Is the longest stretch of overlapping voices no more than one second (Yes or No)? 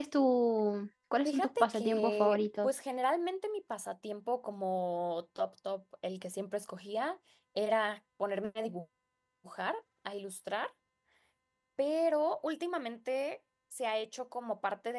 No